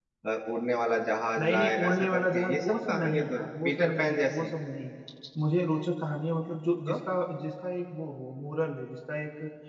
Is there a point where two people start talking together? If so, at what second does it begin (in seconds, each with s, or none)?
1.4 s